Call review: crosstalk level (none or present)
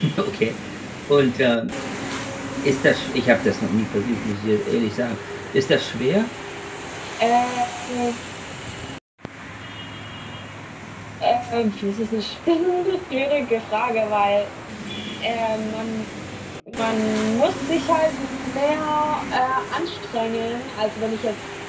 none